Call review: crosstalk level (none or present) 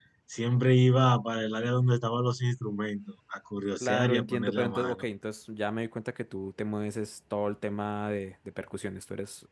present